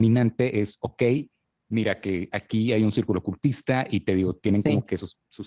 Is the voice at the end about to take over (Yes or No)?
No